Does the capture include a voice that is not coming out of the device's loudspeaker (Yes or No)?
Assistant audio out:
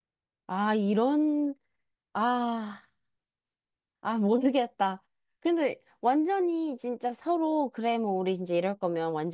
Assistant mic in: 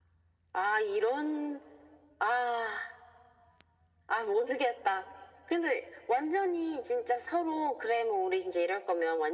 No